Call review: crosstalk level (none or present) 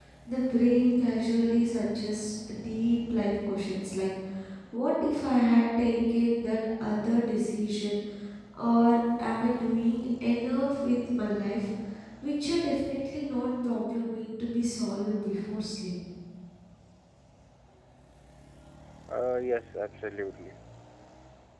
none